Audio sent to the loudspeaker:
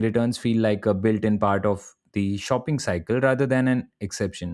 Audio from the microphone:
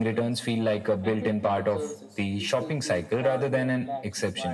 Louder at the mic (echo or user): echo